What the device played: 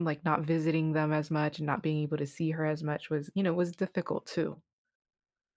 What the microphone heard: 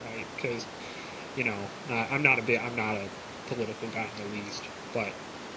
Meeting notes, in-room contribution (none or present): present